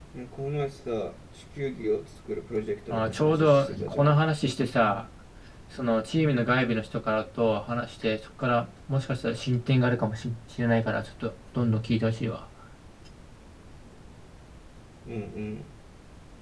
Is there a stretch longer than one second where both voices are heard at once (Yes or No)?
Yes